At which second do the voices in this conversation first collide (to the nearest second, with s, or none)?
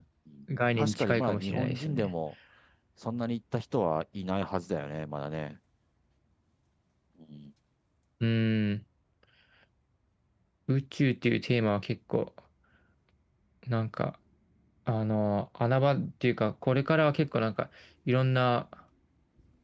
1 s